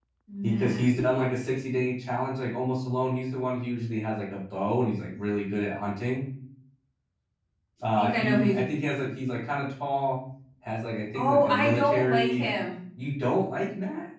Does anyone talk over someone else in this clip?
Yes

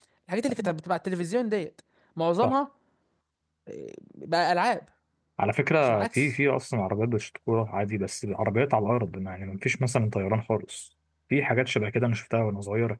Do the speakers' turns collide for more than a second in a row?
No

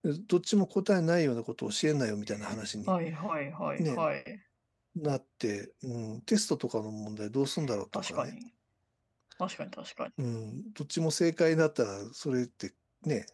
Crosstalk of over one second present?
No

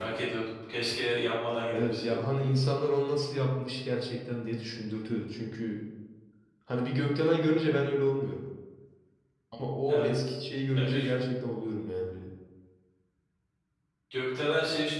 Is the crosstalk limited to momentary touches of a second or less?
Yes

